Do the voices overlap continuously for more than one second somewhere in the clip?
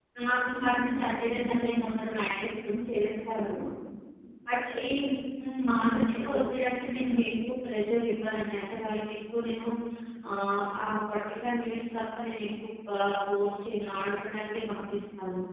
Yes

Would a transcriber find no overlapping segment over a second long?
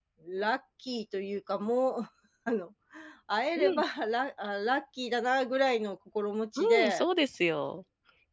Yes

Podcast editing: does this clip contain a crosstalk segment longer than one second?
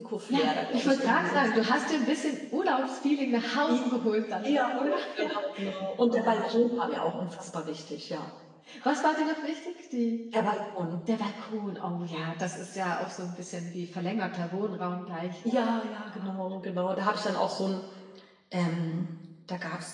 Yes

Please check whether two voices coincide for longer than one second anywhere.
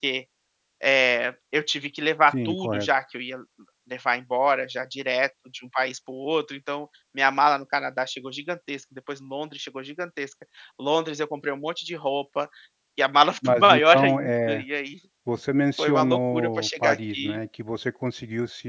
Yes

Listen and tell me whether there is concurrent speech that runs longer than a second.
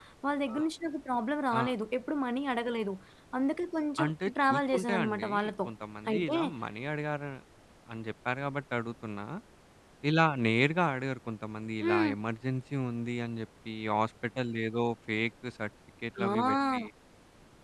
Yes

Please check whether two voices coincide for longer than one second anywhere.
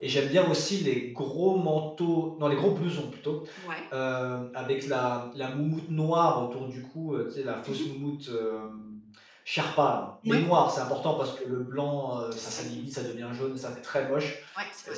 No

